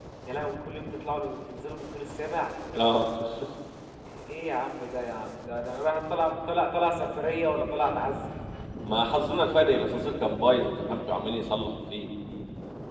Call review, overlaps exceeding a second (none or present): none